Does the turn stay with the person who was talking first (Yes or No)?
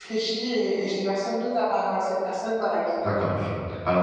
No